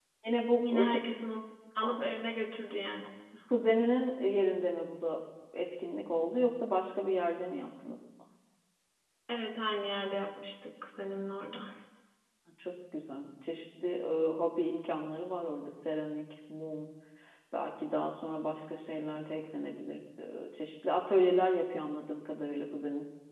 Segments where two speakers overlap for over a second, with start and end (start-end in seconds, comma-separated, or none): none